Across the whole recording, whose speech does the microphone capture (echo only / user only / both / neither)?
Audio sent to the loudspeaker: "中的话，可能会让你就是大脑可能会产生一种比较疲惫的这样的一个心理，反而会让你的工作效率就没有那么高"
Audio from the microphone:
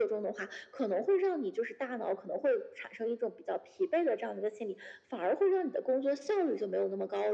echo only